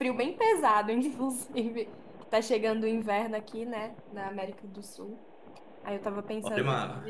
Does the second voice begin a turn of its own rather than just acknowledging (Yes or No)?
No